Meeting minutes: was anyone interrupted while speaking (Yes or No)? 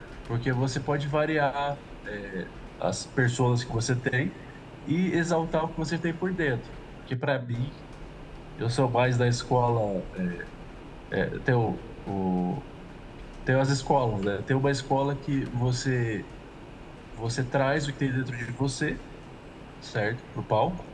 No